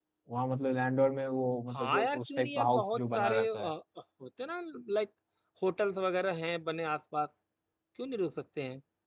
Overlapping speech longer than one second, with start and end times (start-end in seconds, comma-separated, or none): 1.7-3.7